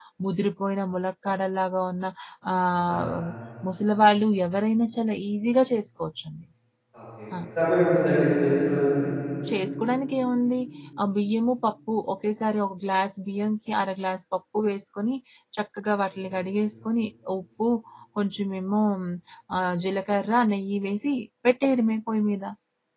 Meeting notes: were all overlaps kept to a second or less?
Yes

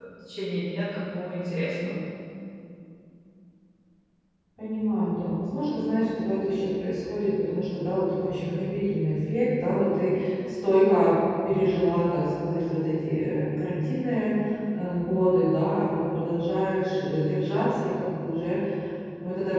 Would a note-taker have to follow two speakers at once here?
No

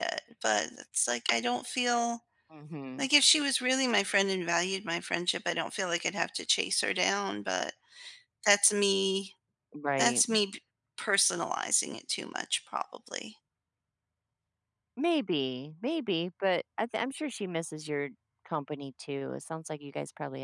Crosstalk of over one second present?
No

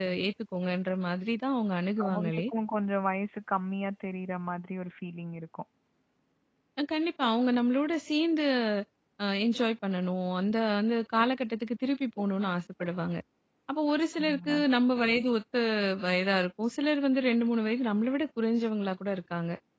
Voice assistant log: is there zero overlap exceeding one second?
Yes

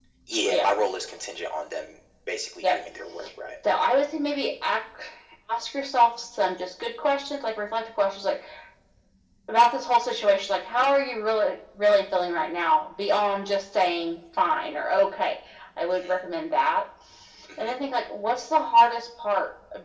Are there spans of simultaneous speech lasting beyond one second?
No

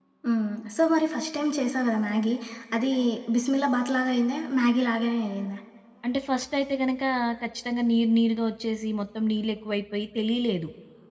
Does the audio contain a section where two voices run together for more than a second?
No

